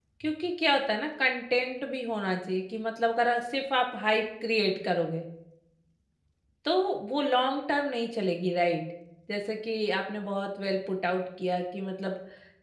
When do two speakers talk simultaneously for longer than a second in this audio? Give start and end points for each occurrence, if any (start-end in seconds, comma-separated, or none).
none